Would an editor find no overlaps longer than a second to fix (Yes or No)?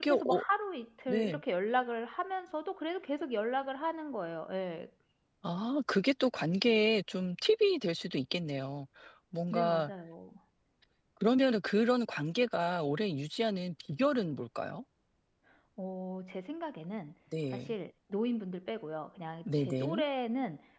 Yes